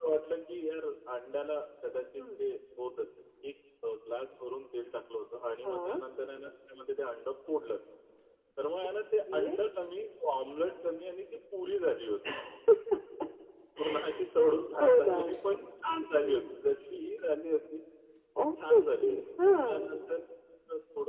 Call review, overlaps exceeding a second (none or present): present